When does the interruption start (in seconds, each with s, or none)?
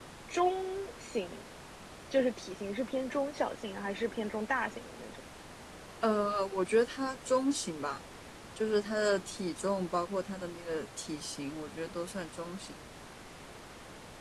none